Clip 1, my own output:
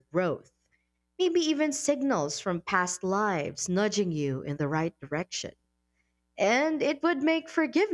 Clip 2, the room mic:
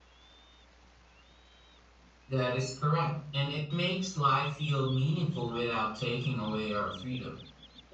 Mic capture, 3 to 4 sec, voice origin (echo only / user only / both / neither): user only